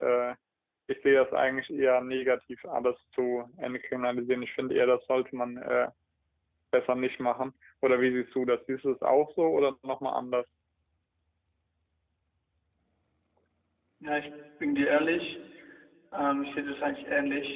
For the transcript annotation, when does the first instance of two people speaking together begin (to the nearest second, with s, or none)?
none